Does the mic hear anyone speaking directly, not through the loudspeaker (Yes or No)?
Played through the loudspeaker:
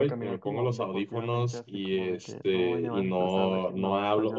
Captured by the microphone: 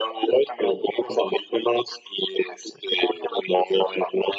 No